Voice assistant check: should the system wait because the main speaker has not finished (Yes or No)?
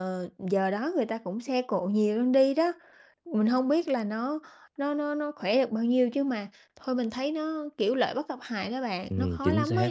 No